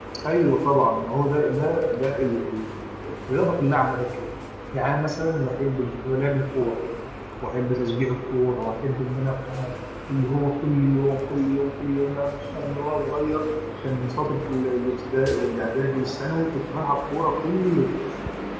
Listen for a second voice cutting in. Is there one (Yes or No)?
No